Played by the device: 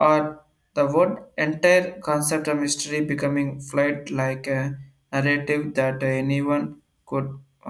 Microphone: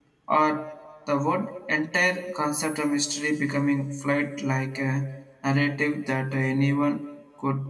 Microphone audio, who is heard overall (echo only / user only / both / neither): echo only